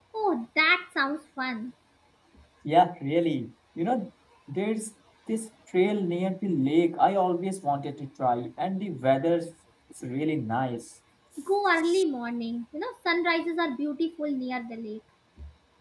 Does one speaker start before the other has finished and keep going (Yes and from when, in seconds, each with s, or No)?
No